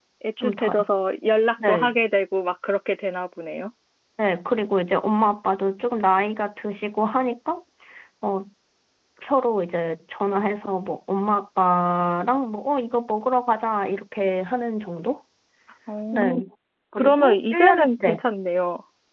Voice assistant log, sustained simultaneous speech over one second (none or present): present